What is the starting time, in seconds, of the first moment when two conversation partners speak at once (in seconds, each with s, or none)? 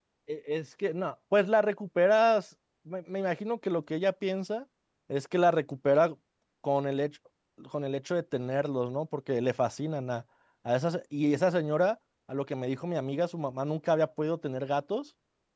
none